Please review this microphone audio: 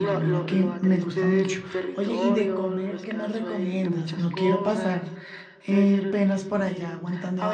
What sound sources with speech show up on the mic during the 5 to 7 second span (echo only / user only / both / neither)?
both